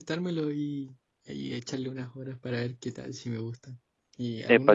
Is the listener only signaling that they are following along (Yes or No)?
No